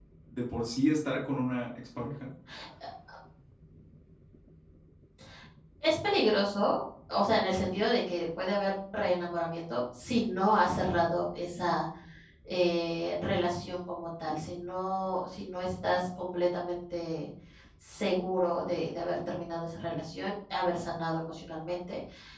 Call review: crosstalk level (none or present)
none